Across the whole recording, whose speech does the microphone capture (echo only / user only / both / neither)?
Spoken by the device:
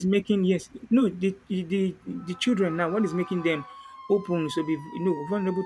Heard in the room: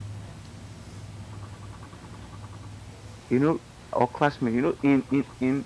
user only